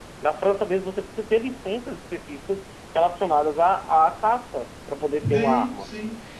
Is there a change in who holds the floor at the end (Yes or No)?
Yes